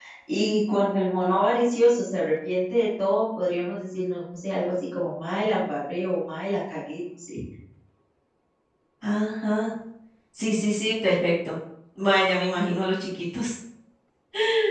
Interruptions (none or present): none